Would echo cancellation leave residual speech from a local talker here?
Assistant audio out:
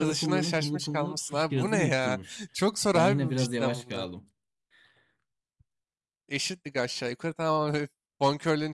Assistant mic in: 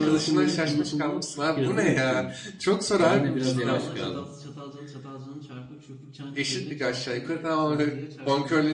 Yes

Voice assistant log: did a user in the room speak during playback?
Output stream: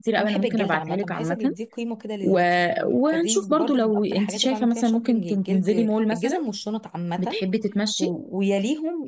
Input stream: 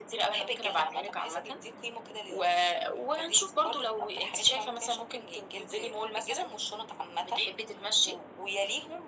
No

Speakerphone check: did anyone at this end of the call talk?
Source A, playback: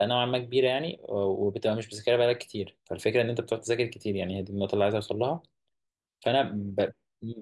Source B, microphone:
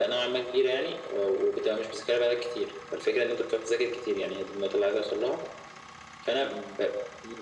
No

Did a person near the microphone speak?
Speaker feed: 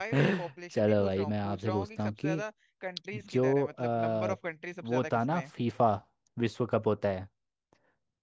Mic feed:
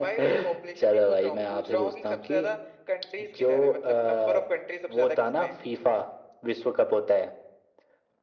No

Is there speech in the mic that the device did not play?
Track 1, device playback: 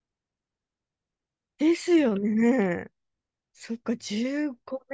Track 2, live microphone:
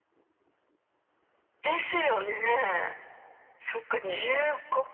Yes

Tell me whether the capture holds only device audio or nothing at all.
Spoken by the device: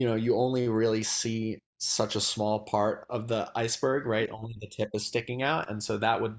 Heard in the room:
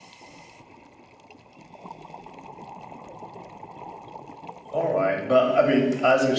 No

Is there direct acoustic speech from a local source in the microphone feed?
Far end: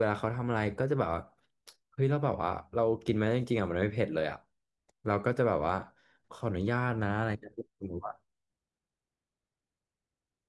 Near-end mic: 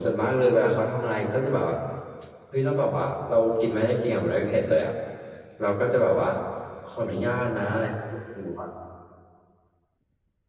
No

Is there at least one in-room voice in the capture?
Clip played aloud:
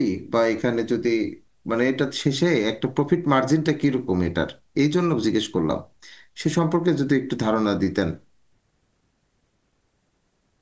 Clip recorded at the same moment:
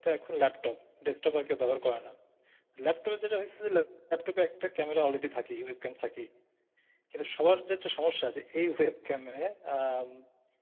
Yes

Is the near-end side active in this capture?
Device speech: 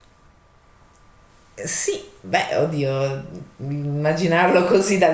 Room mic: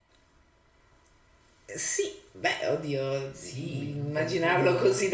Yes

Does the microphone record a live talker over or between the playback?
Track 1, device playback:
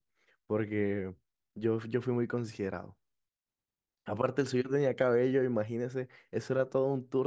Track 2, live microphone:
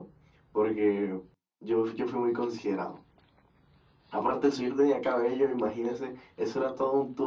No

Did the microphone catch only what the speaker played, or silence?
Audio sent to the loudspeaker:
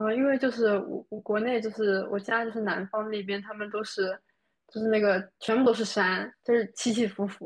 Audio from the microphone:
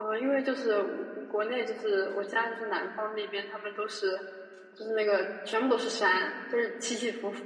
Yes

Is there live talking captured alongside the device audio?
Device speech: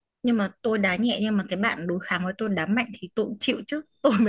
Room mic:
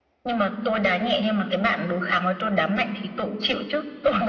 No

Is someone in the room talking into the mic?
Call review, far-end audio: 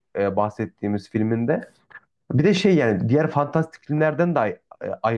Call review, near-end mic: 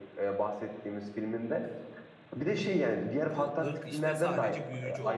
Yes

